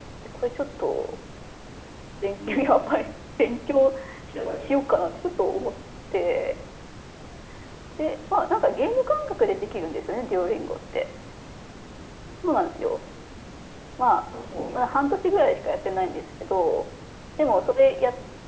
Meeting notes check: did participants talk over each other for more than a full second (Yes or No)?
No